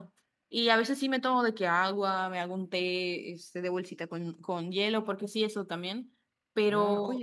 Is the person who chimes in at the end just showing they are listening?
No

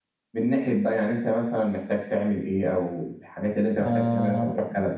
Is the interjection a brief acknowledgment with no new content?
No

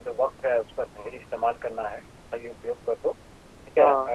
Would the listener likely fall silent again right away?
Yes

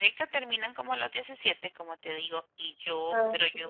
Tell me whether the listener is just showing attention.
Yes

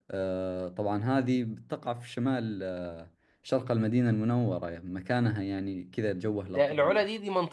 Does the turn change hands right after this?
Yes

